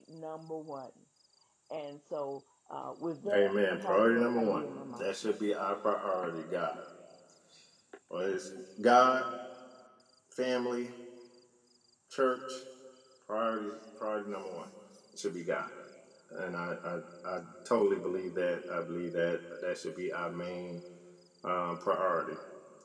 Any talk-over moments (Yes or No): Yes